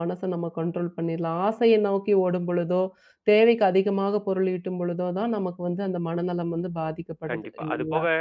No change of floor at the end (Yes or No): No